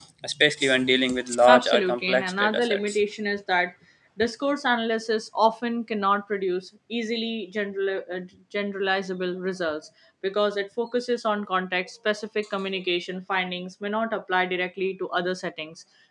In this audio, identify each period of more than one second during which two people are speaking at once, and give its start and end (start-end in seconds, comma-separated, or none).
1.5-3.0